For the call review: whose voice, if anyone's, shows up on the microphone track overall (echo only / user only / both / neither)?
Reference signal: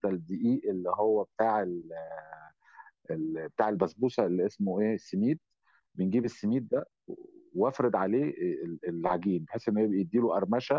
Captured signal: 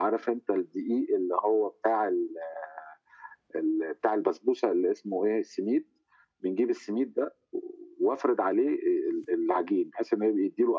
echo only